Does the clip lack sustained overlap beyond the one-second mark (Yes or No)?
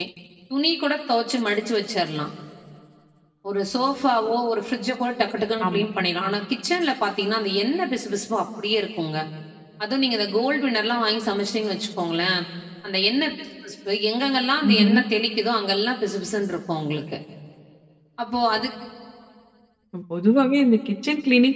Yes